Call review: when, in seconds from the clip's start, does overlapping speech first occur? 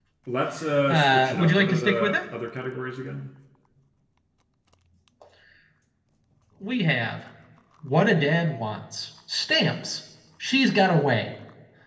1 s

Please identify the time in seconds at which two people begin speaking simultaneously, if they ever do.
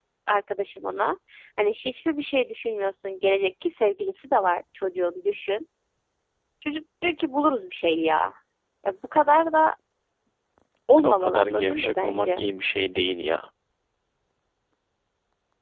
11 s

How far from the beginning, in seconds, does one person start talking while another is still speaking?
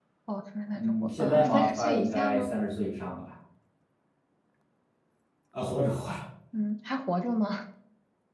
1 s

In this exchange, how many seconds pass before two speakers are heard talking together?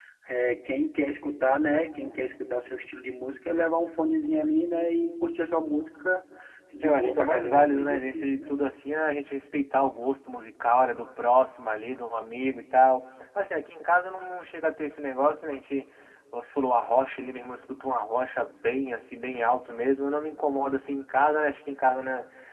7 s

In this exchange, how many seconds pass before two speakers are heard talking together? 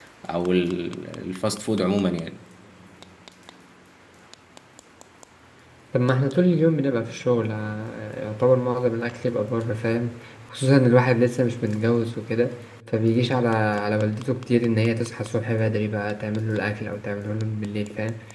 none

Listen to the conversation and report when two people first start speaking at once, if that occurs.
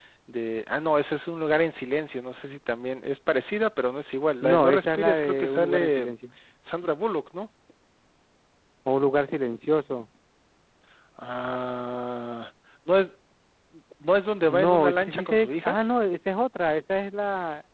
4 s

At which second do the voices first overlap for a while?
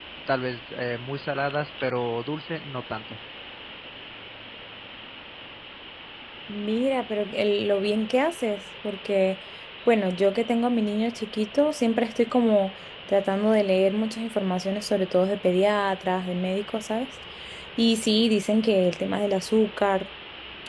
none

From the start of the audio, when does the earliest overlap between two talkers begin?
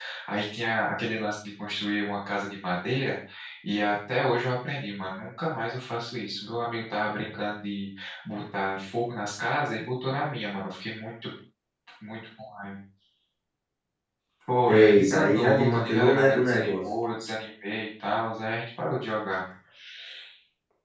15 s

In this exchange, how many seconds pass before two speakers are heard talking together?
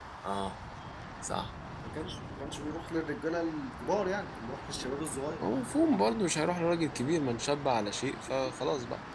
none

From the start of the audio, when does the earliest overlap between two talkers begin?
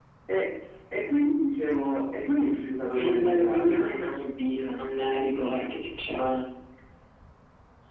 3 s

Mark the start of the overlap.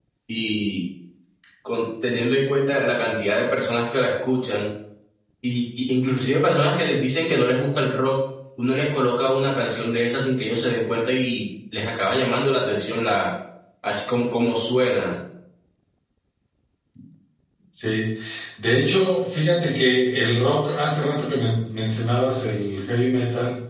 none

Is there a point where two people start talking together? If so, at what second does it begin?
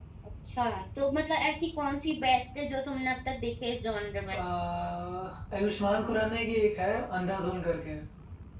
none

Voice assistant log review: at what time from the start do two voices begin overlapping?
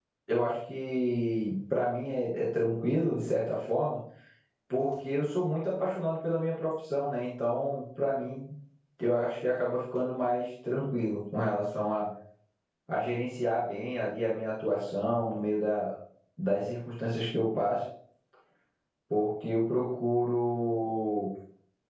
none

